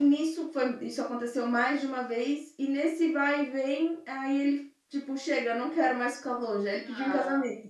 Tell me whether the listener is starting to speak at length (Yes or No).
Yes